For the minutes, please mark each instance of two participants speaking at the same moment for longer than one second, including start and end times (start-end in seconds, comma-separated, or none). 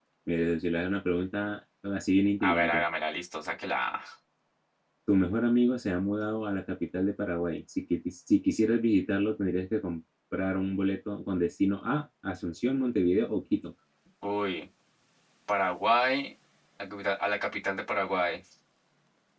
none